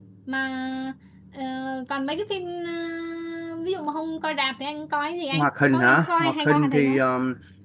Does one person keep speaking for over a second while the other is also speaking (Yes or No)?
Yes